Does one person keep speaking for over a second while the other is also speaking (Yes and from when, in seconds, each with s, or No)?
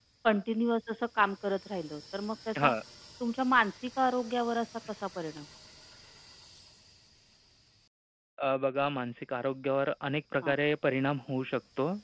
No